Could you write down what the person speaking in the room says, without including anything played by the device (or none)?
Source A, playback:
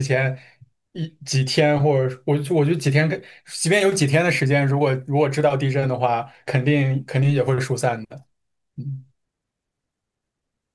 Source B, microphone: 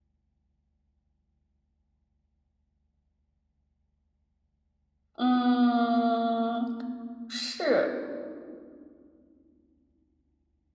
嗯，嗯是